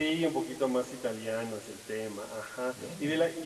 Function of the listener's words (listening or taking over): listening